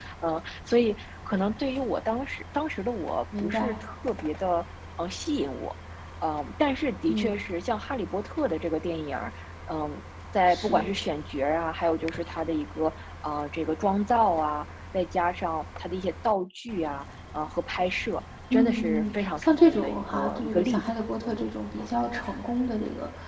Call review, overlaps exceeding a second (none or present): present